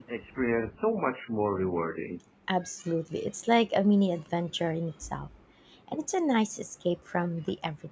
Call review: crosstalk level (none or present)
none